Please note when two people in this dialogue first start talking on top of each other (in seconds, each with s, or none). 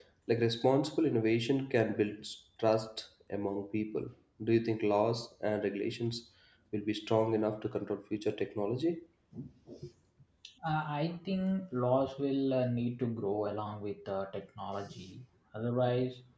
none